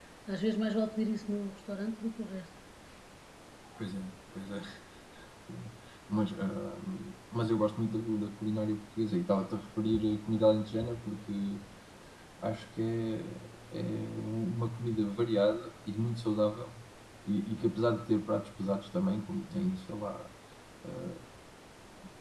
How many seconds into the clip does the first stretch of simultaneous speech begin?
none

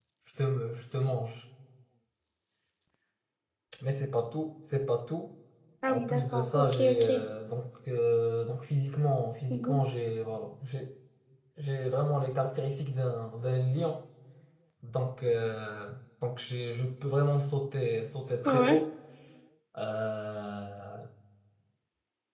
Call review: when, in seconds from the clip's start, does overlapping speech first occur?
6 s

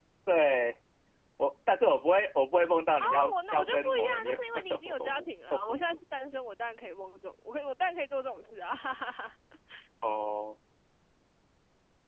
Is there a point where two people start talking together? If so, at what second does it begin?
3 s

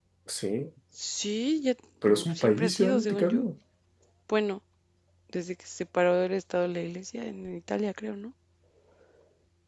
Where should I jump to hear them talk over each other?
2 s

